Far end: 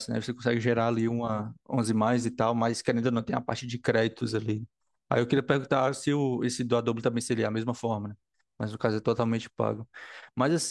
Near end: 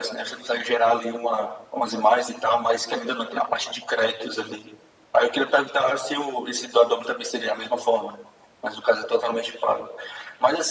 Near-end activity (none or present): none